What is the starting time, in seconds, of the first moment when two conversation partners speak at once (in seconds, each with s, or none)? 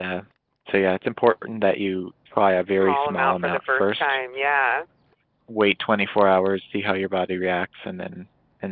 2.6 s